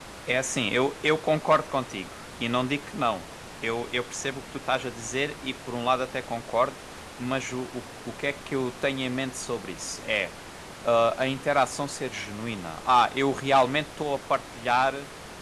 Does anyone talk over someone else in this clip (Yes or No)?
No